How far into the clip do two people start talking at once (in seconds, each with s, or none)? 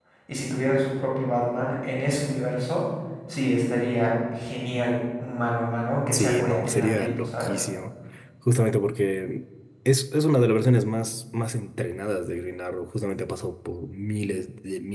6.1 s